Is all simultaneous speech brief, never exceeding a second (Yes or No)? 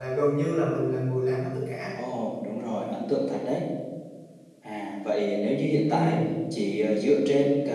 Yes